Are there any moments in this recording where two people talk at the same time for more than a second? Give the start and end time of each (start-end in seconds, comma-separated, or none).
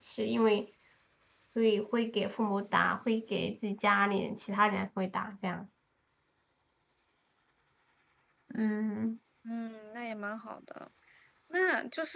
none